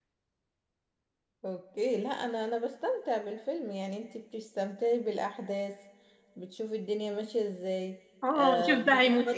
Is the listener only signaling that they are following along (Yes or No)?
No